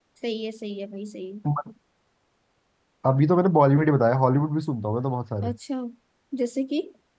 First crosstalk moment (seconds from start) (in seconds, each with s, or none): none